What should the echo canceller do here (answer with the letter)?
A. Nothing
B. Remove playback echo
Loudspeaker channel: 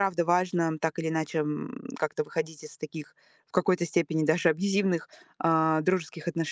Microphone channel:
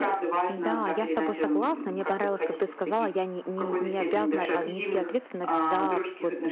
B